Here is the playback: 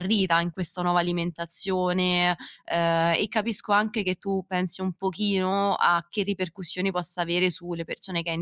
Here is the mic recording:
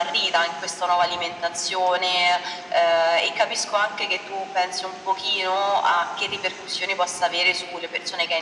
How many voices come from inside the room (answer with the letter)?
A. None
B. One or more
A